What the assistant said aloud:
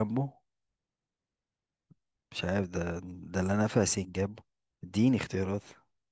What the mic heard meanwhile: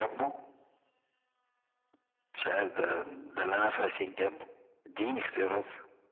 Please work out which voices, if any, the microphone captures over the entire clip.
echo only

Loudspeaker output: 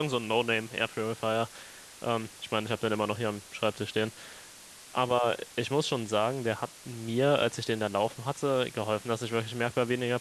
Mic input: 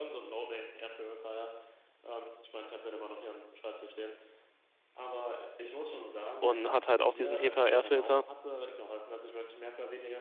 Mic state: both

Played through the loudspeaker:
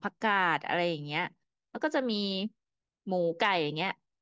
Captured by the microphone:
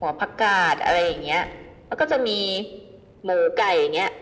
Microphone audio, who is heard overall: echo only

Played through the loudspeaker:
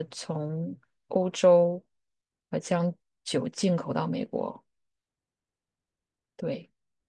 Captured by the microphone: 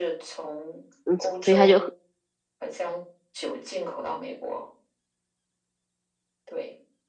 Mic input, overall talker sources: both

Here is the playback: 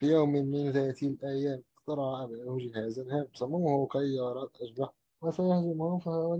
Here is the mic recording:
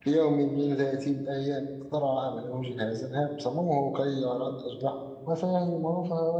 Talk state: echo only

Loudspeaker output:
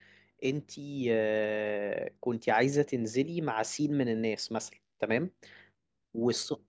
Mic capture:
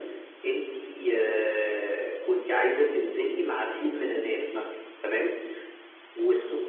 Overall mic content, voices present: echo only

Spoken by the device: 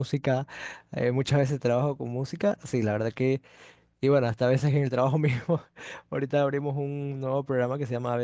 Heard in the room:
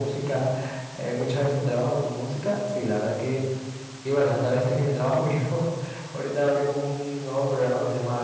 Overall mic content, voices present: echo only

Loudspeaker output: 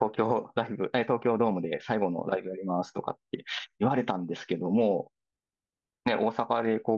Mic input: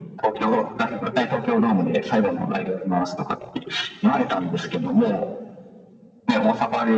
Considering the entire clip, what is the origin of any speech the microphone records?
echo only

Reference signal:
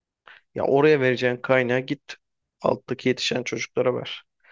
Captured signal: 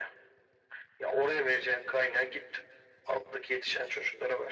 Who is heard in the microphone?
echo only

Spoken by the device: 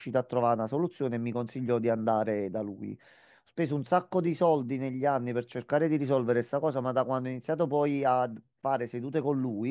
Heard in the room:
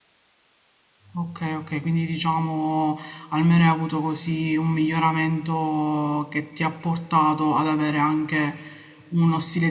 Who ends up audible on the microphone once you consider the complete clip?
user only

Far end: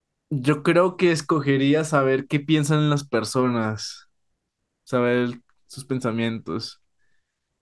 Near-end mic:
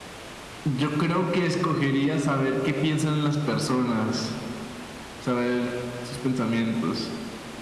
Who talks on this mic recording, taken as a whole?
echo only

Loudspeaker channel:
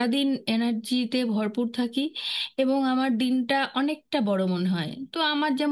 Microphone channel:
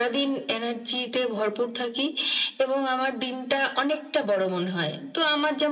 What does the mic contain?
echo only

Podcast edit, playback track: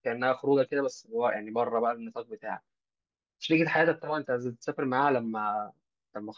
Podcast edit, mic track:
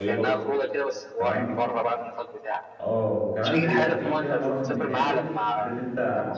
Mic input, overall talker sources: both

